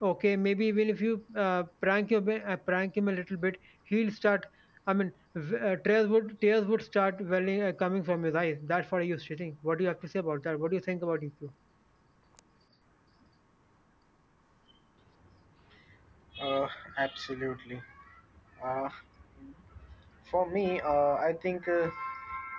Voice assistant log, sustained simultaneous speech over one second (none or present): none